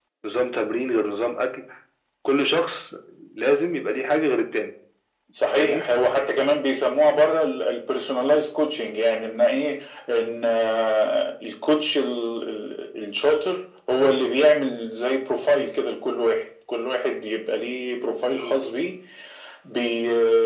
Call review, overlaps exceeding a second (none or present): none